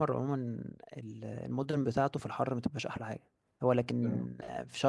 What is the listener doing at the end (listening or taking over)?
listening